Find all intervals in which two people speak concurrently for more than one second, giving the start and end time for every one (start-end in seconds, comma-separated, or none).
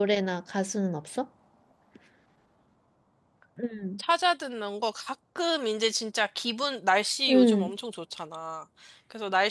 none